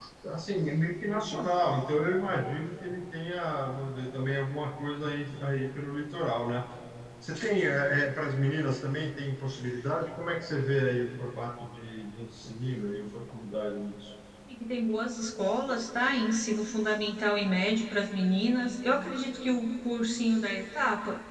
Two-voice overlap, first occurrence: none

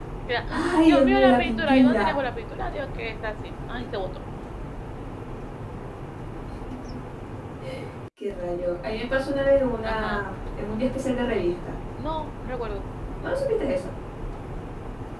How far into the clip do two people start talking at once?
0.5 s

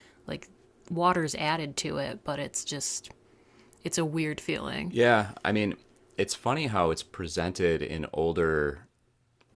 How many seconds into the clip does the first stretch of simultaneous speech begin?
none

